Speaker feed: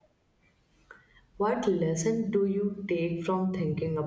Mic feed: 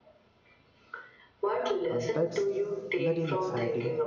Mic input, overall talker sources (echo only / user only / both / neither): both